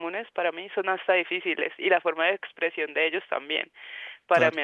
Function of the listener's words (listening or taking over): listening